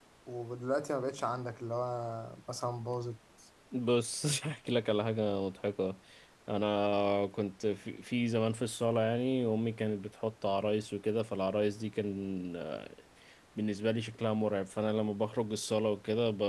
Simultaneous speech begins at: none

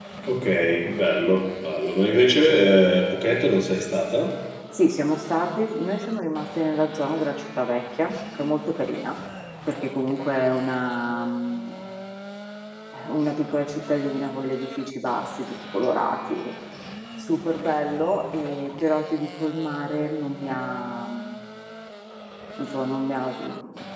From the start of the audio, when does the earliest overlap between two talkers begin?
none

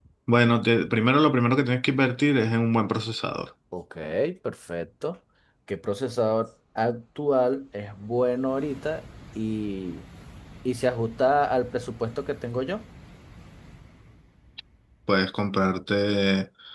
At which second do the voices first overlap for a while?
none

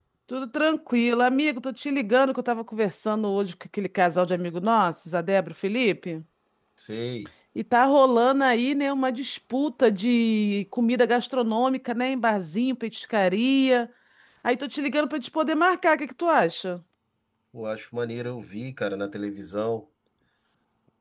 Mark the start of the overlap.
none

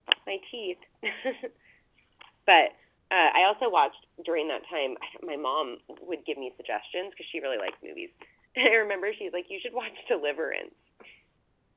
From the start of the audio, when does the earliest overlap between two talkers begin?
none

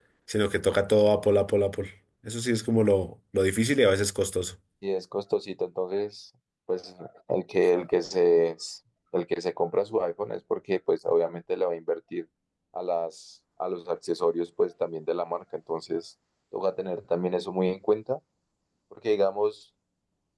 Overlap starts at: none

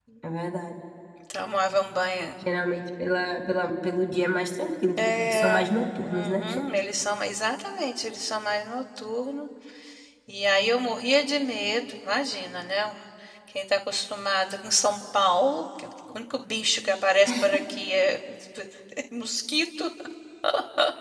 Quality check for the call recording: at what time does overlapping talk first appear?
5 s

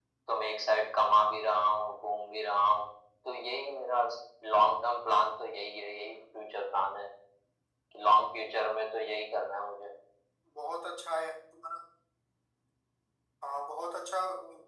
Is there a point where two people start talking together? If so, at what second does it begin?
none

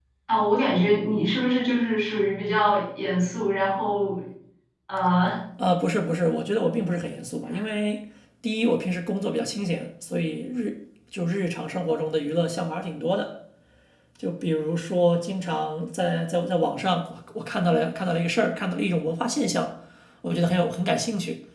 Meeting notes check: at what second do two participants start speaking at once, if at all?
none

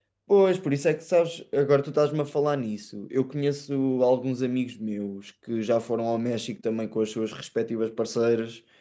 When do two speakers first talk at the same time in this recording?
none

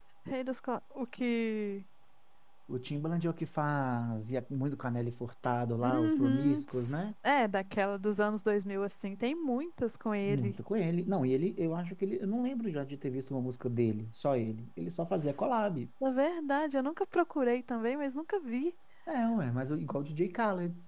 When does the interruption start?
6 s

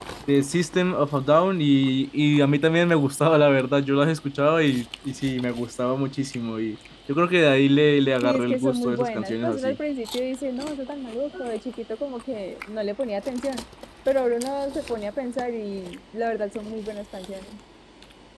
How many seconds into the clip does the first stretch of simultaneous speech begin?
8 s

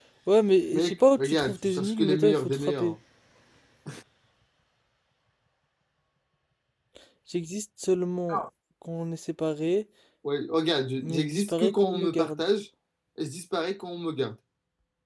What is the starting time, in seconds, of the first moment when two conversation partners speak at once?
1 s

